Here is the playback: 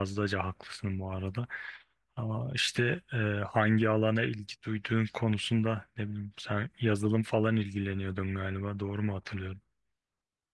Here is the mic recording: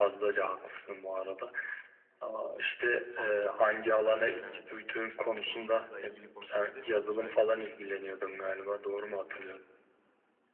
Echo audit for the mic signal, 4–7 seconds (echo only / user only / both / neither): both